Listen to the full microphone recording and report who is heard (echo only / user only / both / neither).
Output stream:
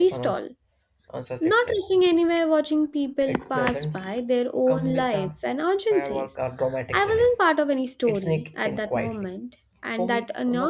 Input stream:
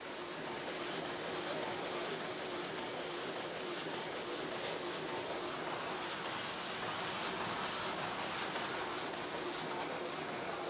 neither